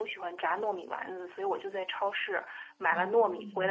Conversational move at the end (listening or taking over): listening